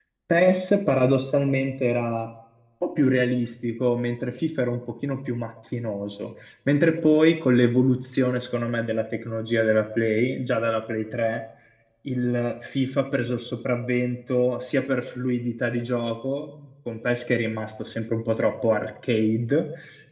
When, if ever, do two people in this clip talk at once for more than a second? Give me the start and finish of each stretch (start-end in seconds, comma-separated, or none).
none